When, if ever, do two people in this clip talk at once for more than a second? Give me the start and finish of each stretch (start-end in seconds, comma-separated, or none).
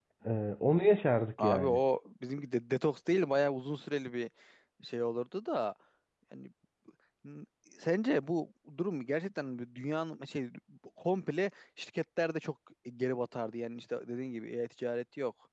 none